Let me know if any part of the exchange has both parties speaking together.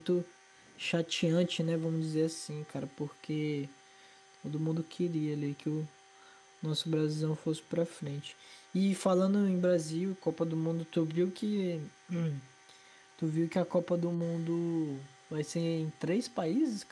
No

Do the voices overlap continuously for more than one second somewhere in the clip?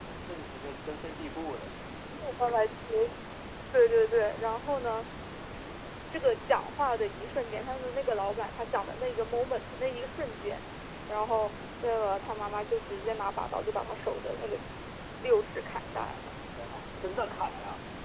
No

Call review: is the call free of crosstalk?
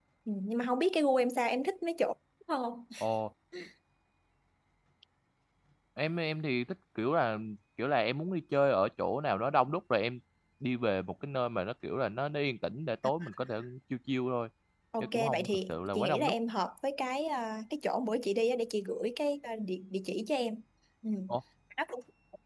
No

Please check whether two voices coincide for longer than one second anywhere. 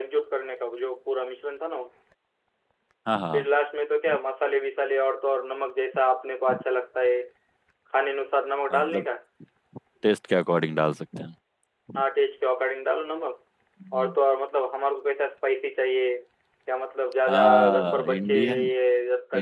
Yes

